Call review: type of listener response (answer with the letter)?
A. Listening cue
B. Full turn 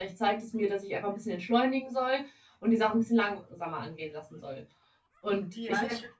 B